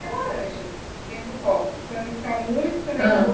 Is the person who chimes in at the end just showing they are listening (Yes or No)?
Yes